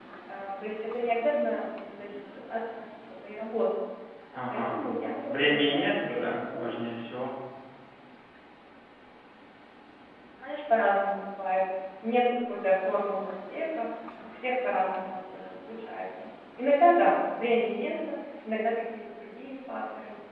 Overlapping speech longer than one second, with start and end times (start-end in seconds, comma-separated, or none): 5.3-6.8